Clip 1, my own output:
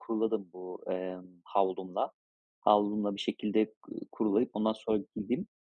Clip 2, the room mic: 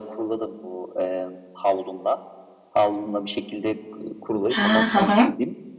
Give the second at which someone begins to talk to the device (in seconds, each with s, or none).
4.5 s